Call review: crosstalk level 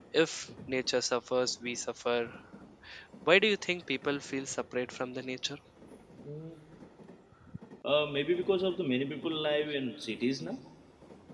none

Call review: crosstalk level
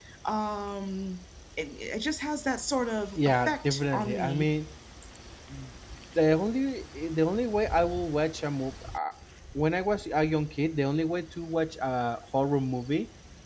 present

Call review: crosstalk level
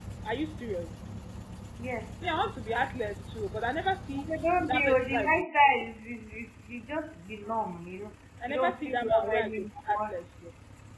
present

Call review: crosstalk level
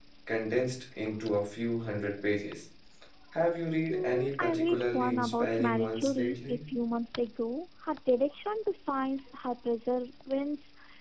present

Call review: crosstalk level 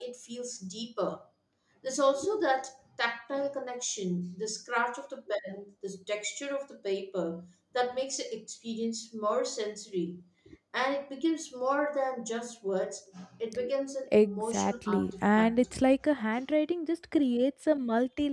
present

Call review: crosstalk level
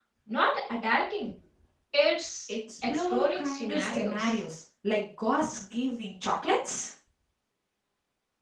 present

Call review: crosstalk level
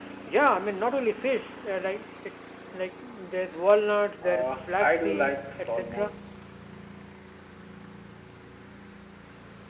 present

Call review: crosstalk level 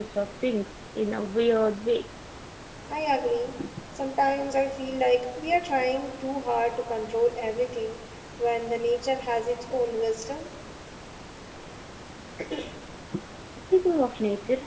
none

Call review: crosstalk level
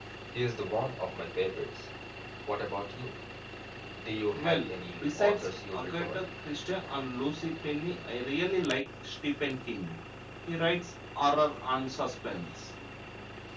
present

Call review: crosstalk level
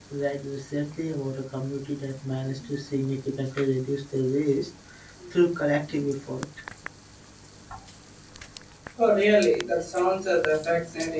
none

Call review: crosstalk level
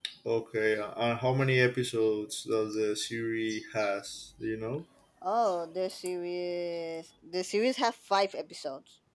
none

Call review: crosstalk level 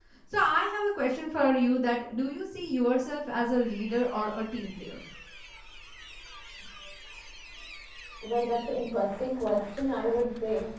none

